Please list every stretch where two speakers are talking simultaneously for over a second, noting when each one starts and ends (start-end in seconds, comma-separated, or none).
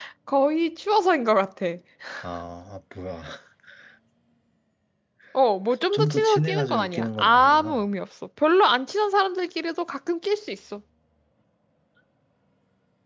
5.9-7.8